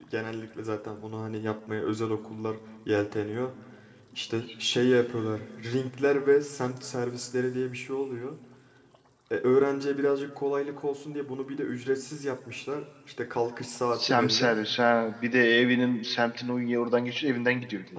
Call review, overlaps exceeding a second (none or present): none